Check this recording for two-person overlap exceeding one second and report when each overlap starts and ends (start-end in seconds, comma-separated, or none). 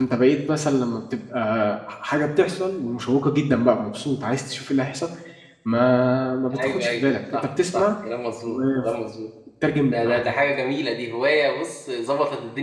6.5-7.8